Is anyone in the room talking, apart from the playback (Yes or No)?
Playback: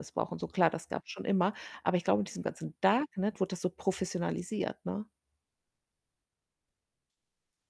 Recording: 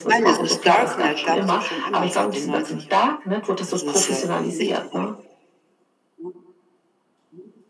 Yes